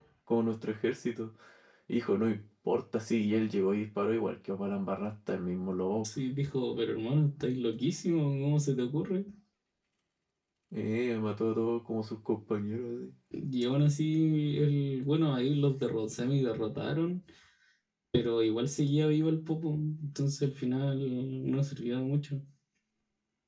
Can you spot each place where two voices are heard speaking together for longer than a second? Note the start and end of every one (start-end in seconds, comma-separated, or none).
none